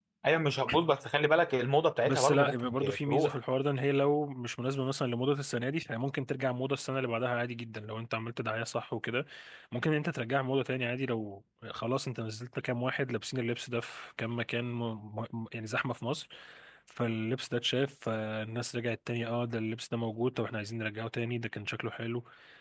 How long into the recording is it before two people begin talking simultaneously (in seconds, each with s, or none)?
2.0 s